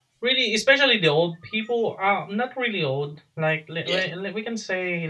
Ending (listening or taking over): listening